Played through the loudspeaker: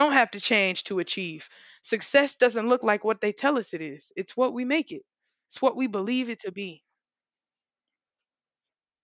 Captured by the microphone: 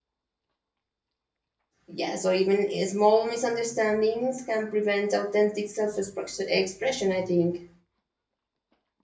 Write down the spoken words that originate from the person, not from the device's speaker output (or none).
yeah so even small misunderstandings can prevent authentic self-expression i think